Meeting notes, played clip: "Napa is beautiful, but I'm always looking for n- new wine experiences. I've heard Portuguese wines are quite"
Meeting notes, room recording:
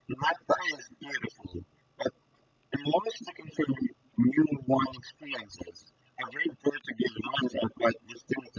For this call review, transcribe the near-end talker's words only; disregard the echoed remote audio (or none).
none